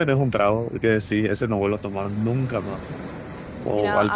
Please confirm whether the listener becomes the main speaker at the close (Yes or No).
Yes